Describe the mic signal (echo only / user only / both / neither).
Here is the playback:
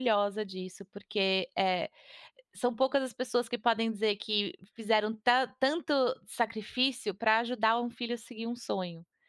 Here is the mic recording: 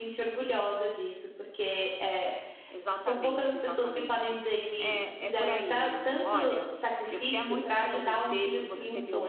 both